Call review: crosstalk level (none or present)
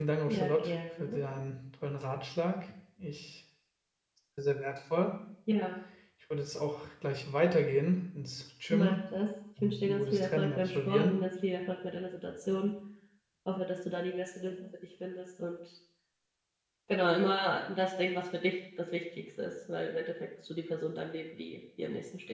present